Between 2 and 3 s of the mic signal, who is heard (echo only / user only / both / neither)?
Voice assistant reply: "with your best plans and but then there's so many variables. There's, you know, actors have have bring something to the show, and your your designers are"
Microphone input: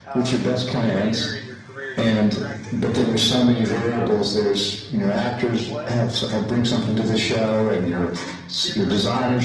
both